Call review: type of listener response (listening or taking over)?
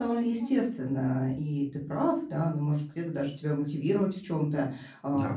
listening